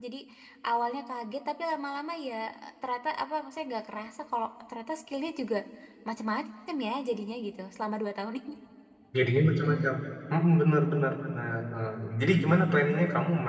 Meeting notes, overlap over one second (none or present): none